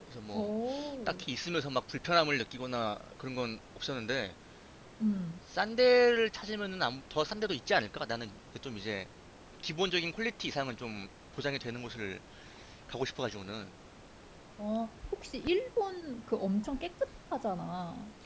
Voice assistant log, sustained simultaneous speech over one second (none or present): none